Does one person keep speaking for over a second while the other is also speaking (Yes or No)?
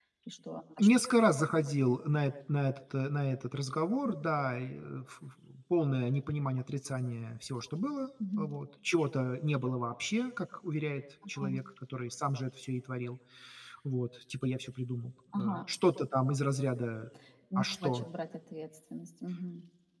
No